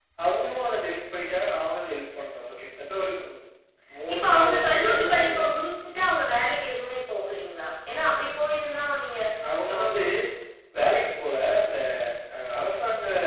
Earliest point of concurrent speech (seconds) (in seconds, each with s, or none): 4.1 s